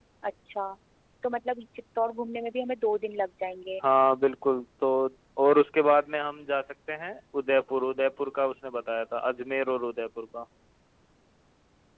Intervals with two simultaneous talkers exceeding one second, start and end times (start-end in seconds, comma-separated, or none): none